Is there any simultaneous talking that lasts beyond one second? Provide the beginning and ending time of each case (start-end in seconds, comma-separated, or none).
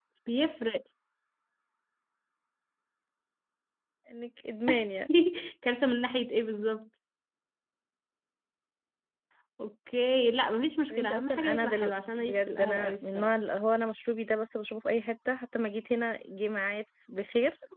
10.9-13.3